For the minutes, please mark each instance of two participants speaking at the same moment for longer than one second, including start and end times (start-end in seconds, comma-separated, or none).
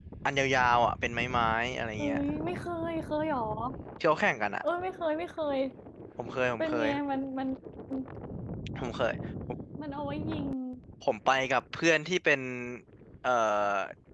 none